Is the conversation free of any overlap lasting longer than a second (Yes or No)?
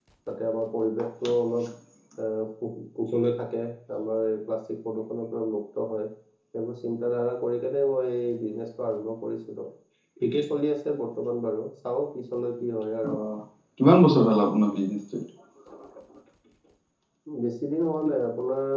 Yes